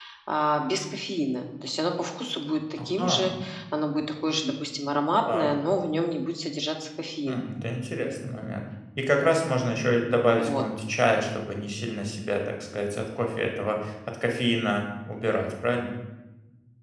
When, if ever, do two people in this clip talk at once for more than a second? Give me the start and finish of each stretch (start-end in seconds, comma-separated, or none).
none